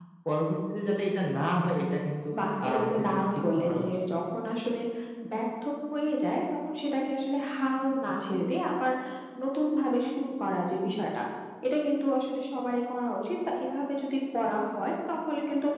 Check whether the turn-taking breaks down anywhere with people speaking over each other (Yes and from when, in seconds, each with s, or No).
Yes, from 2.6 s